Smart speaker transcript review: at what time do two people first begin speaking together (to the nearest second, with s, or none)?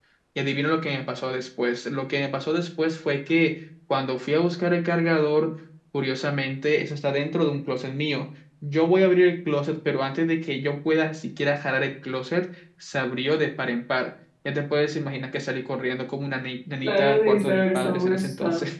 17 s